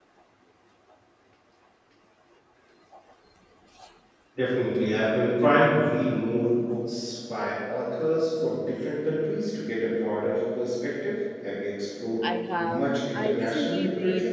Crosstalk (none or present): present